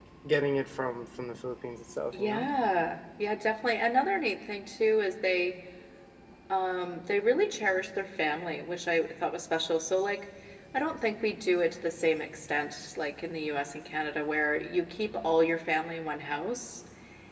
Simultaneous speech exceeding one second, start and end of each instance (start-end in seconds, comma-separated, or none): none